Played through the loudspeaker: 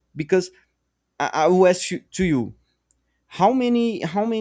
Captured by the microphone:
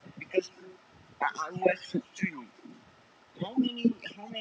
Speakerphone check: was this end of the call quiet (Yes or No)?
Yes